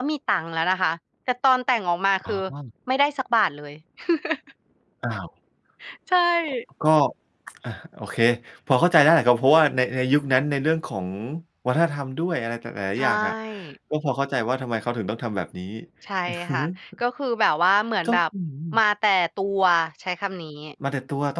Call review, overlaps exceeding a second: none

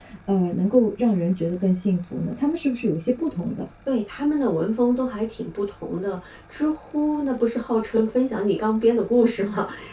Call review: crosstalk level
none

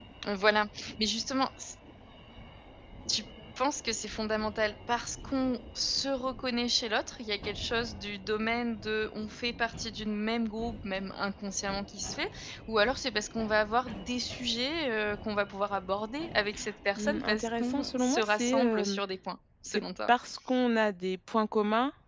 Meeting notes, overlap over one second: present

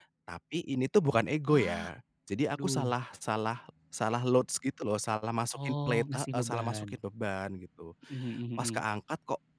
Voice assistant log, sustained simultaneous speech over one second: present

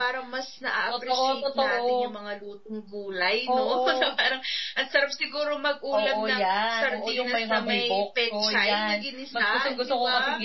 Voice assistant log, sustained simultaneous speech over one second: present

